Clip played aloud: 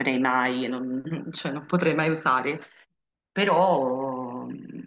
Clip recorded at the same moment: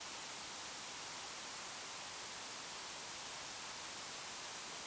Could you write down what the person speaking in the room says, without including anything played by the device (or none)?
none